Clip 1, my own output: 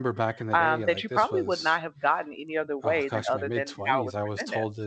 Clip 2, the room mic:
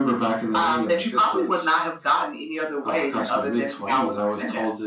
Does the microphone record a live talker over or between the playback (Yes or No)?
No